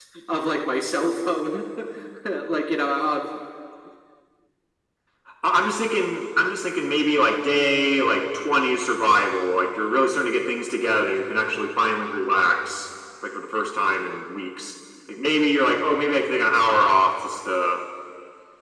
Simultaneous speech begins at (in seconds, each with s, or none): none